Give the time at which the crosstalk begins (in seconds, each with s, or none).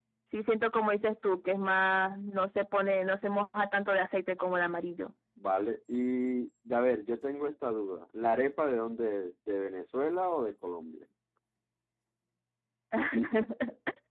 none